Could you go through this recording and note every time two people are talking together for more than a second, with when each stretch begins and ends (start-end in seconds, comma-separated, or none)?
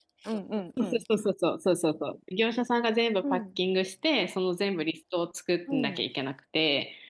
none